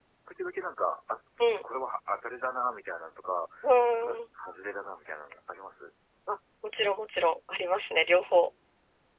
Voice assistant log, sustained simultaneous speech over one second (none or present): none